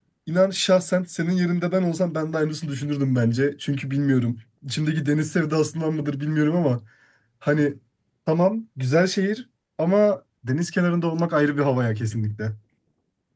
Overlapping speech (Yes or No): No